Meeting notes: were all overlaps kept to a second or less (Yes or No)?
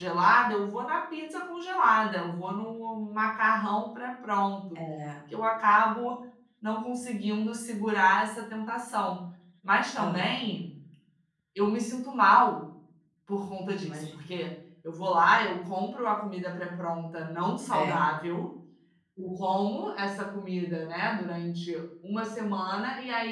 Yes